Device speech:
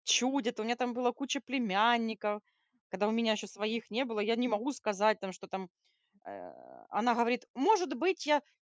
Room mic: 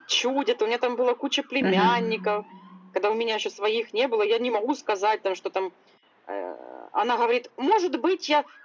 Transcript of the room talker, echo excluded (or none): Мгм.